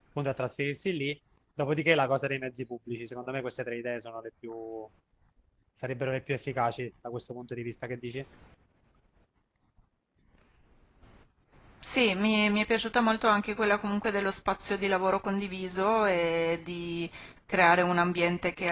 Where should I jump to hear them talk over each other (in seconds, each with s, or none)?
none